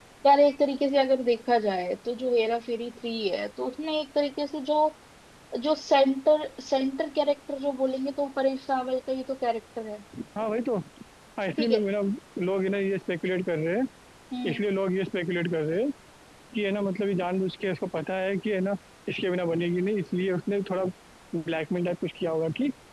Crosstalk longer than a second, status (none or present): none